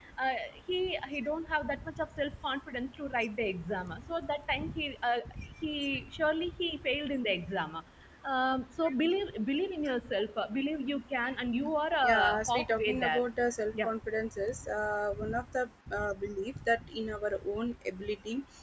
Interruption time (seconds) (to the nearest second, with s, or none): 12 s